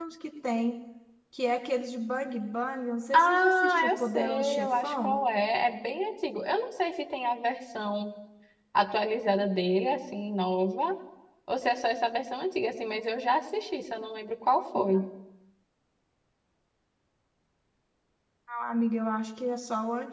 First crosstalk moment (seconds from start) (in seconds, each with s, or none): 3.1 s